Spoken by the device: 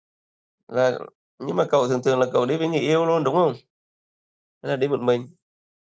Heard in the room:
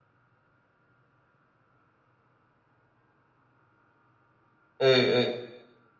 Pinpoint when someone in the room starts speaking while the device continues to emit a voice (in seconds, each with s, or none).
4.8 s